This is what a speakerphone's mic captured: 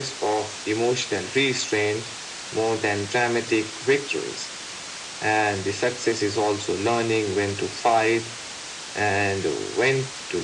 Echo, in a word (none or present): present